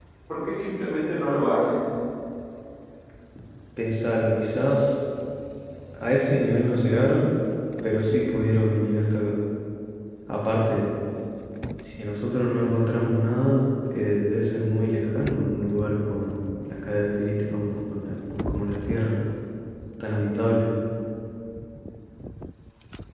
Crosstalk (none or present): none